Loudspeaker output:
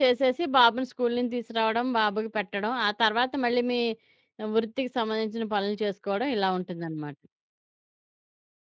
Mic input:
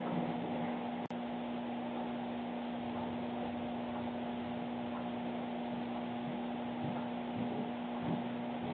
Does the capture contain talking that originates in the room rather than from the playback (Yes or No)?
No